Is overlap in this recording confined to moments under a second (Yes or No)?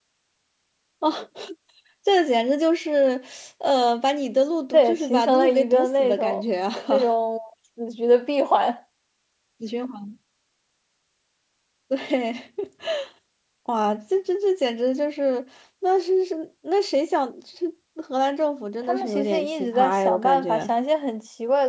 No